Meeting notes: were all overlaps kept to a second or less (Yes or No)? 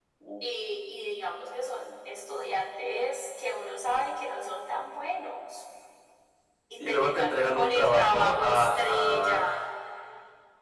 No